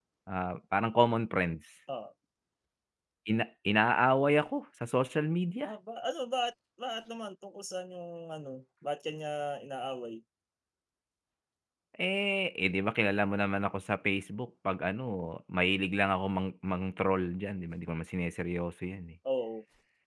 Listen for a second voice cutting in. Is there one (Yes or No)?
No